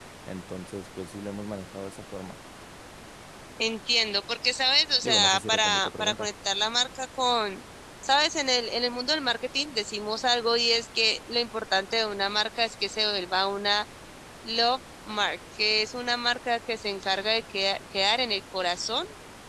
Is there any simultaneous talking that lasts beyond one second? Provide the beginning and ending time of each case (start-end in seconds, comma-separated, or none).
5.0-6.3